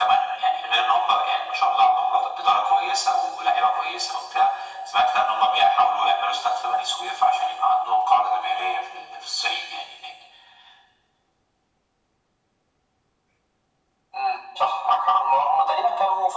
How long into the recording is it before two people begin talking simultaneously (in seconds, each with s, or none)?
none